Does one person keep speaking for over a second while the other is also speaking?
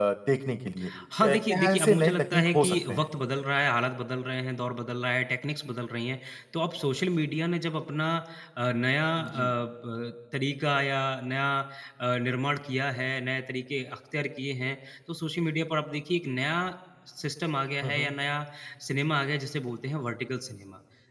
Yes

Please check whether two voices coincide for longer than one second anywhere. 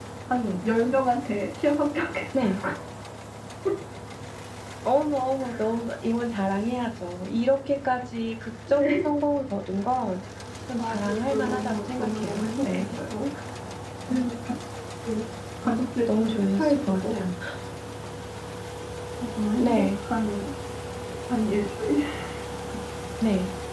Yes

